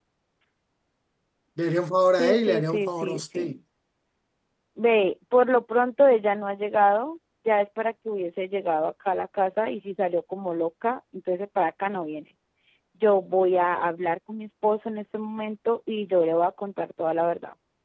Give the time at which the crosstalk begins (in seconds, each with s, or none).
2.2 s